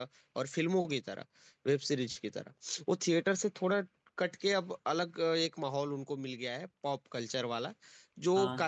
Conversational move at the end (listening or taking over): listening